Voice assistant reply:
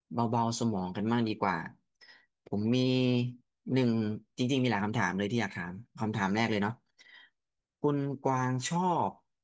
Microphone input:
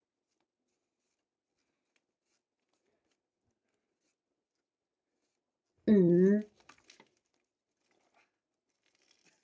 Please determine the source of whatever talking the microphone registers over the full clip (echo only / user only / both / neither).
user only